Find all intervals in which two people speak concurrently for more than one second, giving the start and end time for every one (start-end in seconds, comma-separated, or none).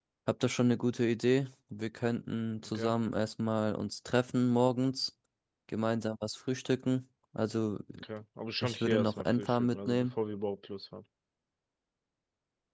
8.6-10.1